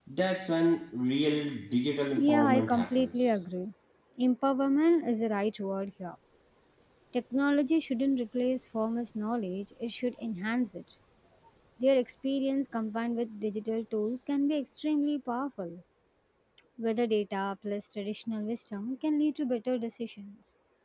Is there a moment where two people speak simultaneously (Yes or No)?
Yes